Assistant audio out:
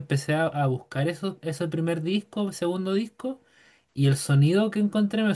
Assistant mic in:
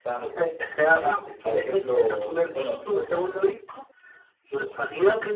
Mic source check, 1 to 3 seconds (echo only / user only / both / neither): both